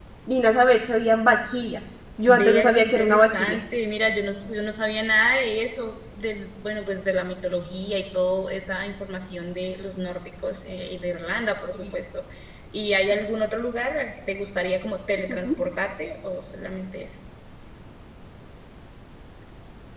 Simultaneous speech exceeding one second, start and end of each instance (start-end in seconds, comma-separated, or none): 2.3-3.6